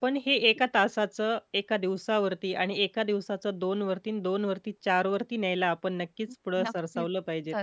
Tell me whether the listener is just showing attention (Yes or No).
No